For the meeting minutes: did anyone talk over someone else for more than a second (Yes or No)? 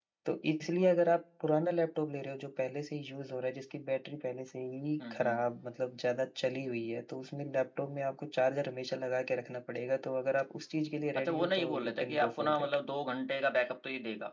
Yes